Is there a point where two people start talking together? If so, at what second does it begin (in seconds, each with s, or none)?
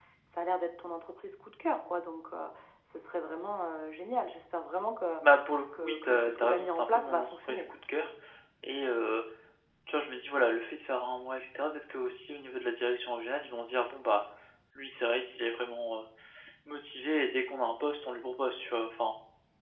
5.8 s